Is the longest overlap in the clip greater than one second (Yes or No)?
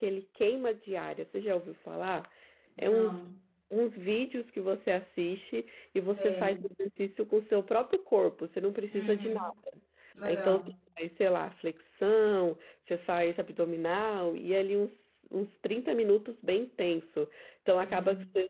No